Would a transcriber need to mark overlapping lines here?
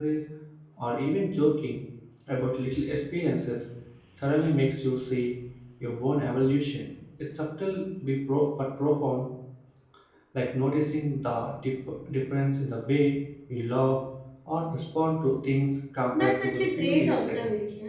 Yes, from 16.1 s

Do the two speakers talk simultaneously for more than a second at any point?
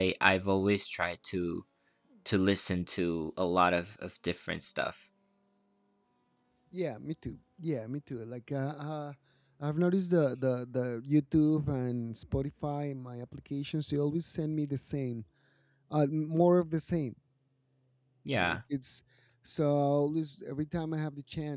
No

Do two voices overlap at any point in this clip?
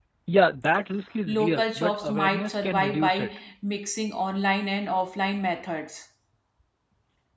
Yes, from 1.3 s

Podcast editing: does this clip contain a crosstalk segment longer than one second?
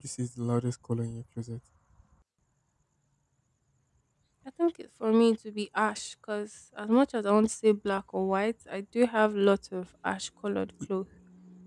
No

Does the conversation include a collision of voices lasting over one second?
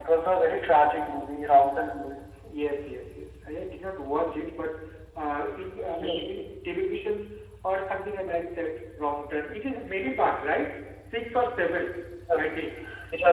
No

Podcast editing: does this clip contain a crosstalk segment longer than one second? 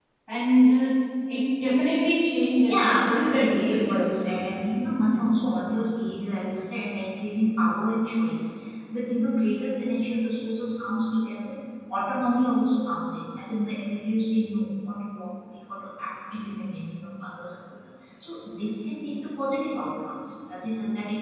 Yes, from 2.4 s

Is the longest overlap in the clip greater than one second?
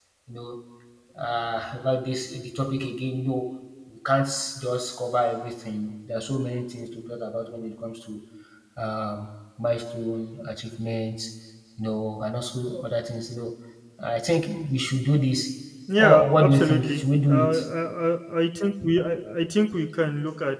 Yes, from 15.9 s

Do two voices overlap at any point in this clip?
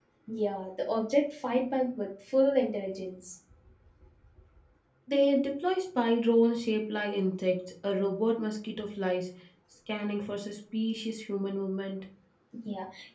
No

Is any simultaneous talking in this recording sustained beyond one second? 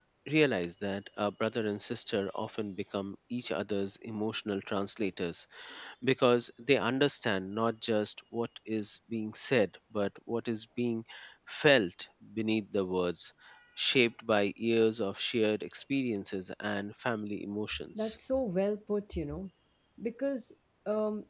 No

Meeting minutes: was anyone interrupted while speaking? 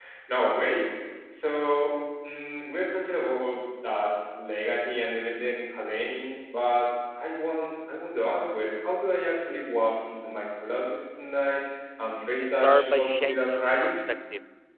Yes, from 12.4 s

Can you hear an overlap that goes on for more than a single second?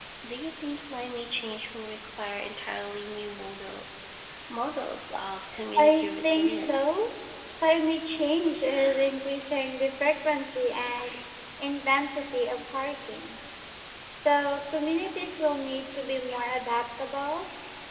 Yes, from 5.8 s

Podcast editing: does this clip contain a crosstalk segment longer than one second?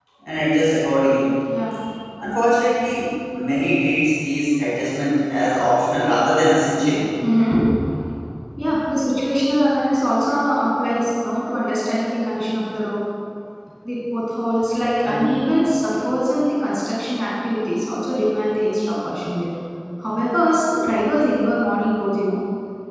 No

